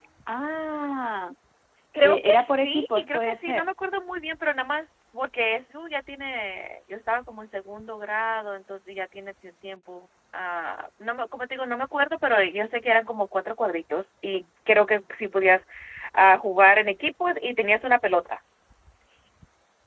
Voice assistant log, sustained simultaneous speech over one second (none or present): present